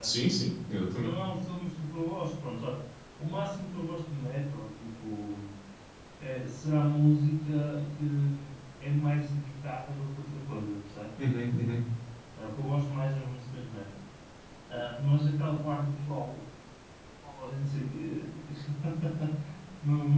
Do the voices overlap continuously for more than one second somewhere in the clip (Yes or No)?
No